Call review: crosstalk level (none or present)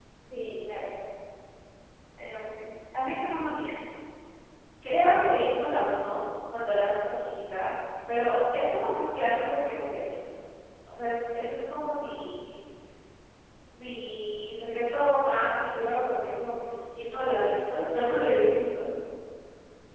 none